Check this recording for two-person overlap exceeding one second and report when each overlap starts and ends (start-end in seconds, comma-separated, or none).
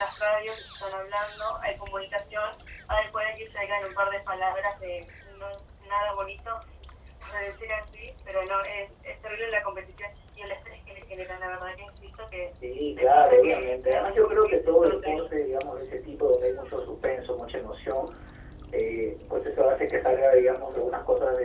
13.0-15.2